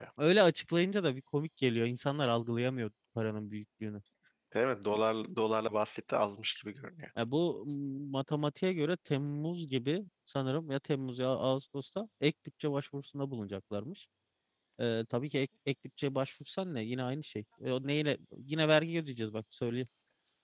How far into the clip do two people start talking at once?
none

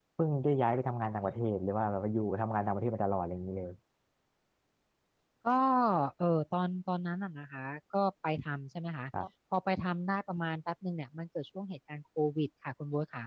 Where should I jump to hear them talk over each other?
none

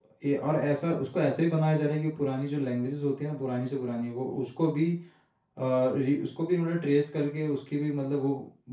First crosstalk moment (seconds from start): none

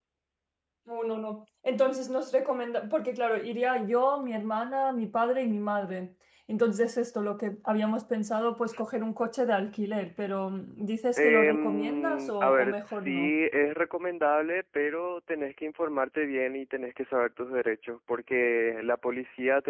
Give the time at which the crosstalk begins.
11.2 s

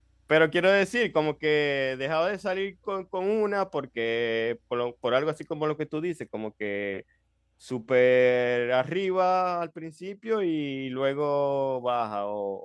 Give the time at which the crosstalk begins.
none

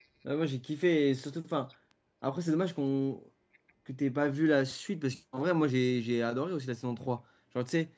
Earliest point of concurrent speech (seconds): none

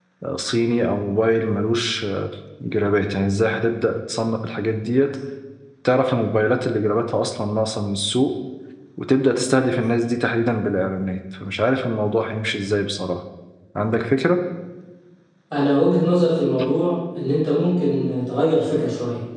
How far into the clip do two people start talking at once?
none

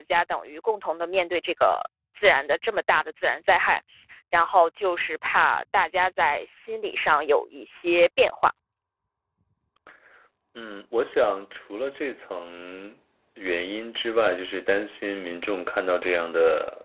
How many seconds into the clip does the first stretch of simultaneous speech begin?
none

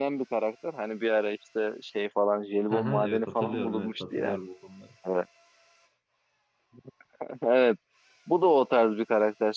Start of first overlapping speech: 2.7 s

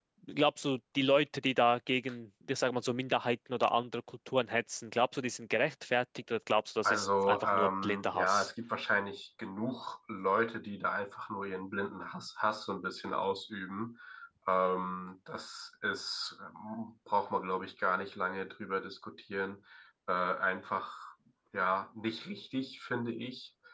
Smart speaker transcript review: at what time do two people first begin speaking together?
6.8 s

